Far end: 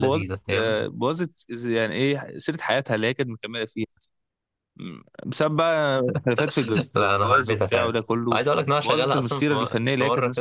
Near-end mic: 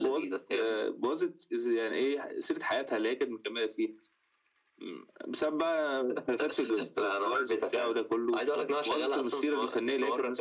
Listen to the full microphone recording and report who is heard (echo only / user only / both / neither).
echo only